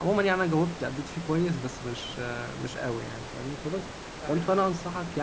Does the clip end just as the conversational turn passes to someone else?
No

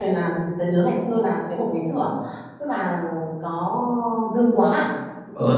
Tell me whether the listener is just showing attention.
No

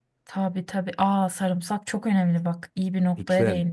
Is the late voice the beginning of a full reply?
Yes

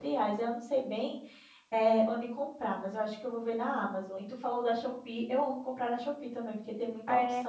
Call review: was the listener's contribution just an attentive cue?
No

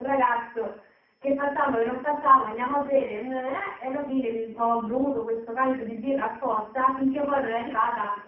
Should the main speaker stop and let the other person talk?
No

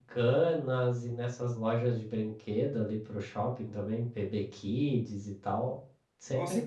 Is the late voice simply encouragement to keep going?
No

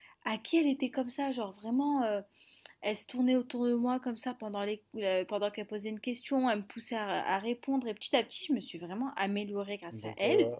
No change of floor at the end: No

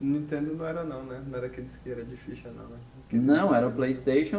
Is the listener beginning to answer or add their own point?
Yes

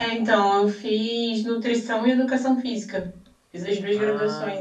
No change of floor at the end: Yes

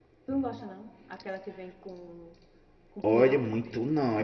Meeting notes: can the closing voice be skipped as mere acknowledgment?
No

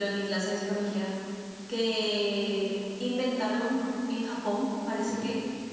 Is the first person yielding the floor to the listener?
No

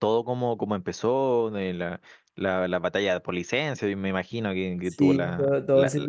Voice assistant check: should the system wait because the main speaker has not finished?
No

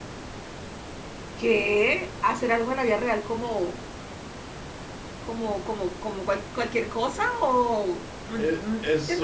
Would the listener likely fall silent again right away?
No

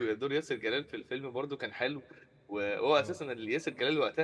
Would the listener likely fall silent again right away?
Yes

